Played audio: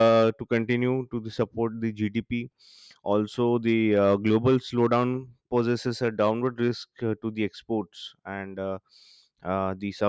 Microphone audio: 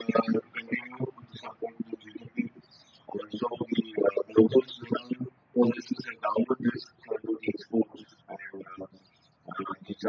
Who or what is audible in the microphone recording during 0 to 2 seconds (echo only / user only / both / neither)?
echo only